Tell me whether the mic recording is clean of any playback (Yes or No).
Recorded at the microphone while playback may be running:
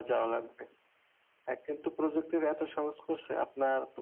No